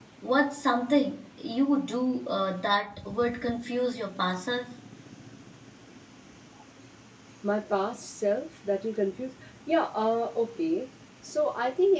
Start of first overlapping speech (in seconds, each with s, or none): none